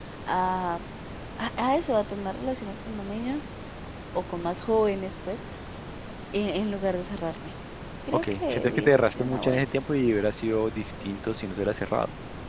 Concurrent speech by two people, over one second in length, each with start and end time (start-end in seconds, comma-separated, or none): 8.1-9.7